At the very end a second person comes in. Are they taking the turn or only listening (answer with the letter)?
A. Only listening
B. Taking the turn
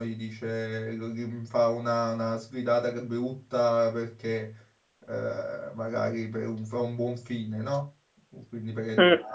A